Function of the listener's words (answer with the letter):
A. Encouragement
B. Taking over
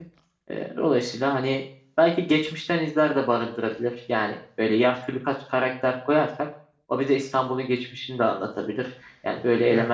A